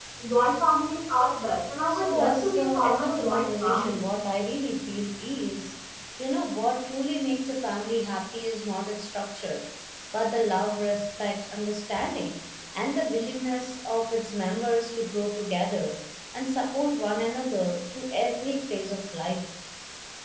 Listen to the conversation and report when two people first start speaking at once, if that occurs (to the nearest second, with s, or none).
2 s